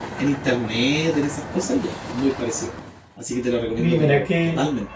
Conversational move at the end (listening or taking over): taking over